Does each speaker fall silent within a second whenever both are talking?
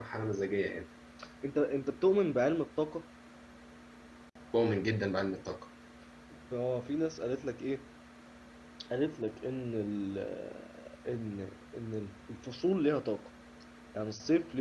Yes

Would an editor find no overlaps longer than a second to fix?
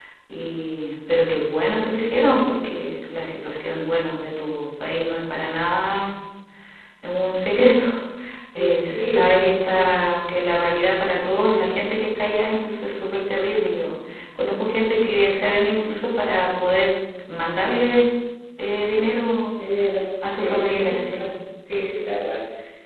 No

